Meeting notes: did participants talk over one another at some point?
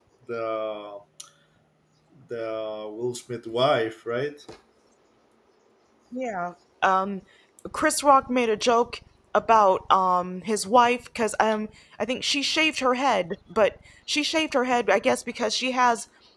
No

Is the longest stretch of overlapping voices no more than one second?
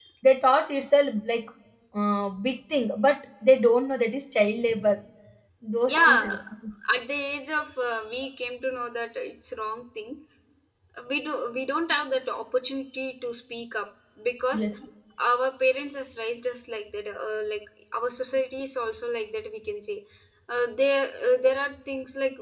Yes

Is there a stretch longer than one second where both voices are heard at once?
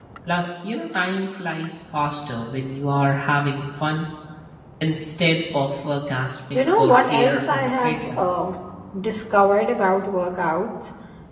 Yes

